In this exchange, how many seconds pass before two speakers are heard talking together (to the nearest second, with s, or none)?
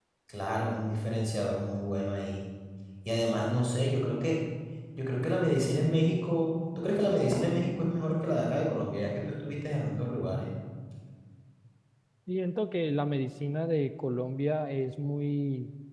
none